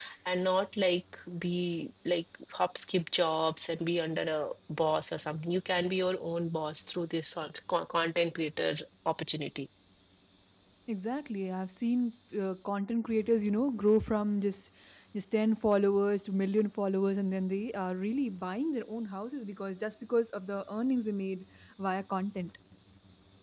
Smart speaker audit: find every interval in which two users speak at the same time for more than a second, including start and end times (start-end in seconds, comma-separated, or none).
none